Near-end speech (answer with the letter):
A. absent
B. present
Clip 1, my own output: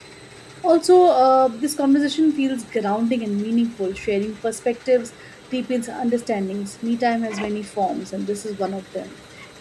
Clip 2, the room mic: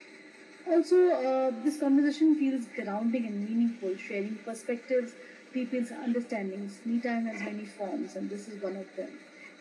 A